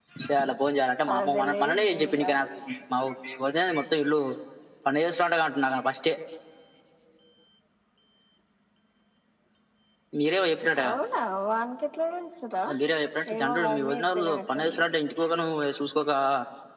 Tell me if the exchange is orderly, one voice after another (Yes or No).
No